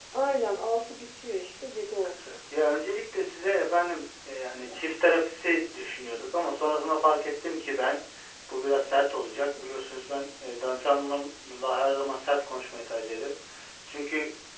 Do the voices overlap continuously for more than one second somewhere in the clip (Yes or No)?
No